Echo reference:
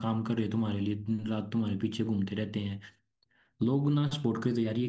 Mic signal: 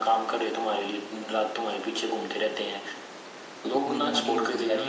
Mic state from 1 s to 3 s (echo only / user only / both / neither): echo only